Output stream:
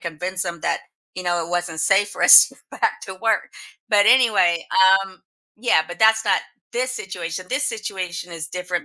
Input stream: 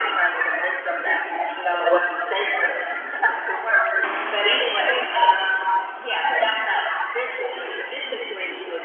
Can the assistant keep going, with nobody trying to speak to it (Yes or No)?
Yes